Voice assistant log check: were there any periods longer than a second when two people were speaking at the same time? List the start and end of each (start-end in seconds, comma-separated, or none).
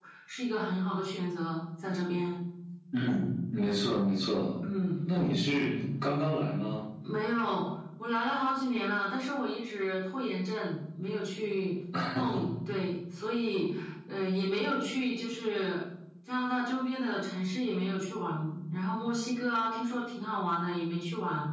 none